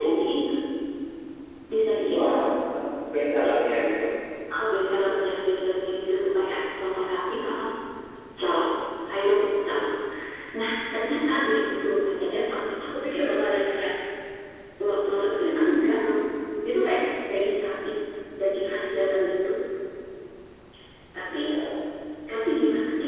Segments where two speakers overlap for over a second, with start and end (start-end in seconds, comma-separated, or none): none